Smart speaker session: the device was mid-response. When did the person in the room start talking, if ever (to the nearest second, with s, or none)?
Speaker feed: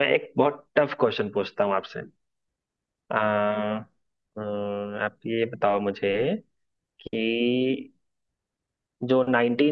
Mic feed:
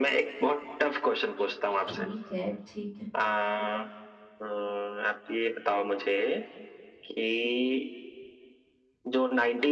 2 s